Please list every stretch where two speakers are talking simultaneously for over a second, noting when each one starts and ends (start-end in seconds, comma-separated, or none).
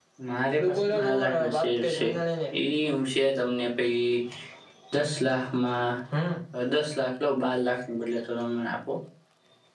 0.7-2.1